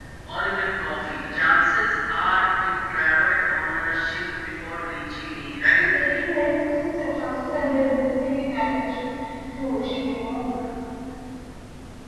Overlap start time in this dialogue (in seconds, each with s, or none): none